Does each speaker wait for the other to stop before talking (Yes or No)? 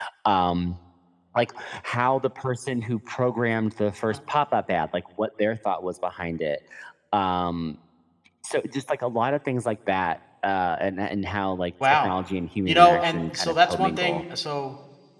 No